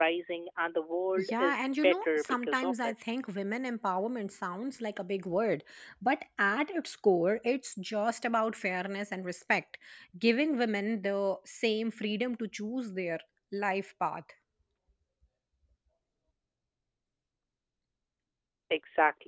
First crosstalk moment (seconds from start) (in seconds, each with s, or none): 1.2 s